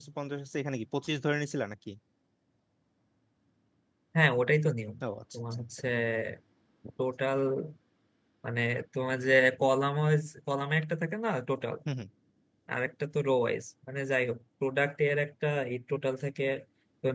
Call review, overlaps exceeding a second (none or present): none